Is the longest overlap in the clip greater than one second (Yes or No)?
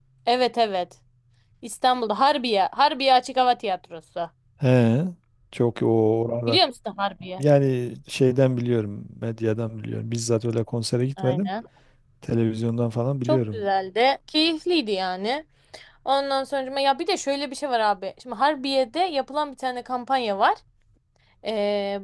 No